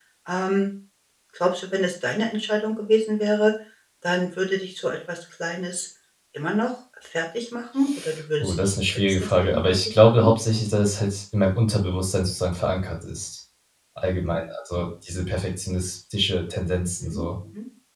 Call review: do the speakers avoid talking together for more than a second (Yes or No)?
No